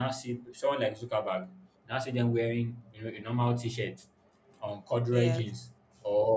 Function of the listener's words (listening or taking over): listening